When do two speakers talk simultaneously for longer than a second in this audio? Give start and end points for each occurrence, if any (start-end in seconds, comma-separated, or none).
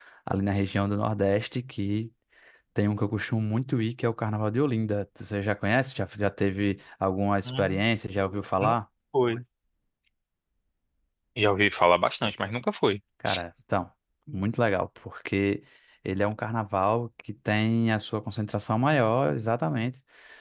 none